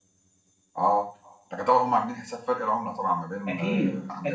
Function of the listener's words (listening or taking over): taking over